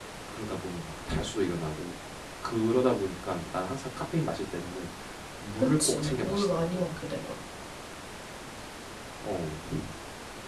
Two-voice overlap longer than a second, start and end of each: 5.6-6.8

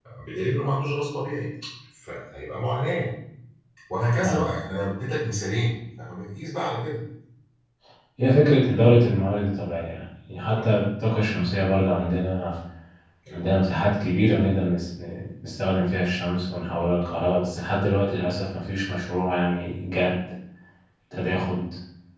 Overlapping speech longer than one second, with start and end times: none

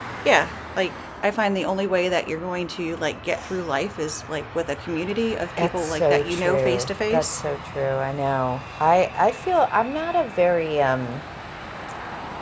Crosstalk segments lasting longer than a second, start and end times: 5.6-7.4

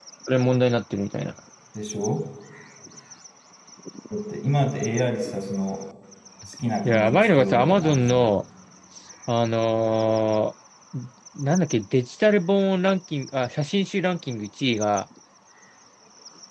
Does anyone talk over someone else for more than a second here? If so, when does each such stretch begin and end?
6.8-8.3

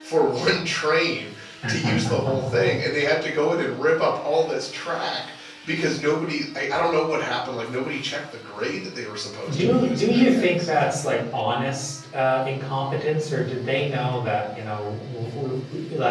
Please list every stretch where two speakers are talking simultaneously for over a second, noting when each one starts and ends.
9.5-10.7

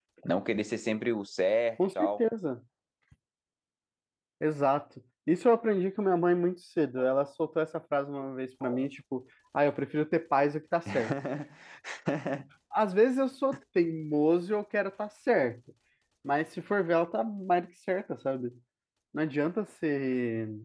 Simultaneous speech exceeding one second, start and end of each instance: none

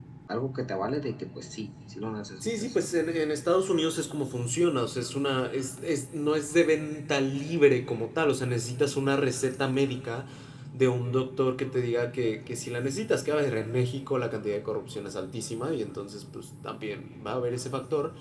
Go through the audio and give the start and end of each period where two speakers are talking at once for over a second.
none

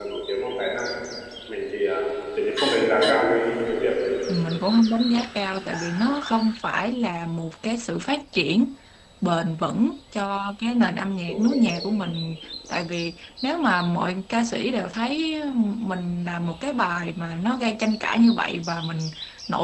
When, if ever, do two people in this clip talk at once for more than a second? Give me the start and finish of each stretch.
none

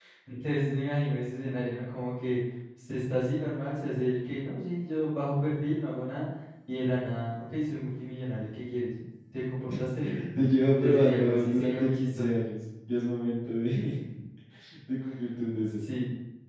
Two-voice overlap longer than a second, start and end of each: 10.8-12.4

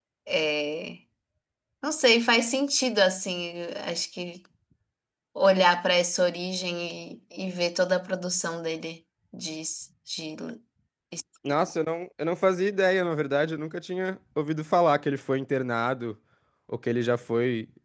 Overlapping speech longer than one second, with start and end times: none

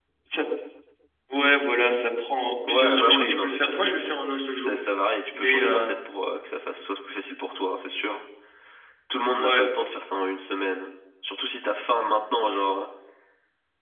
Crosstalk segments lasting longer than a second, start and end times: 2.7-4.1

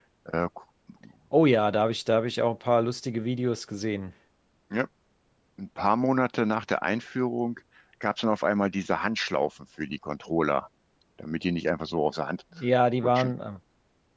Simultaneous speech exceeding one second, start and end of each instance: none

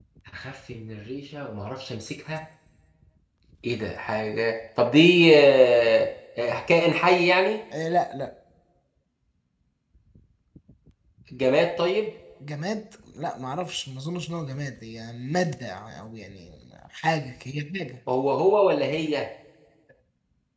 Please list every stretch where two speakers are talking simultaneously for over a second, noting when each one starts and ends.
none

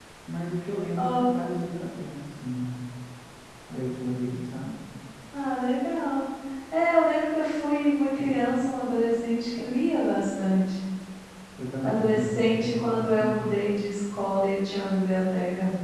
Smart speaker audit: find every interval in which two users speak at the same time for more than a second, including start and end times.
11.8-13.5

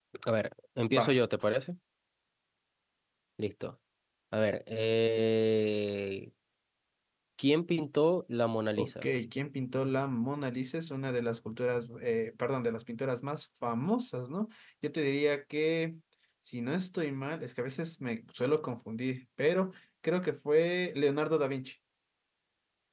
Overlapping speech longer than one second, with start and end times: none

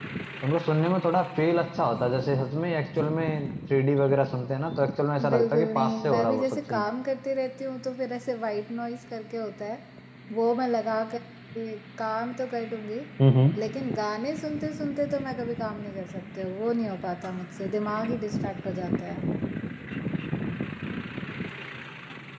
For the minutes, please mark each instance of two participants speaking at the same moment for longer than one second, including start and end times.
5.3-6.8

